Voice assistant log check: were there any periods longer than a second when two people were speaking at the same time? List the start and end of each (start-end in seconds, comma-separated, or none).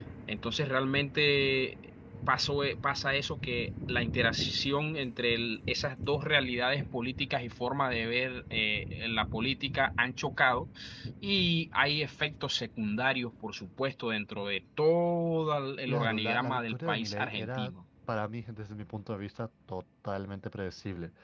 15.9-17.7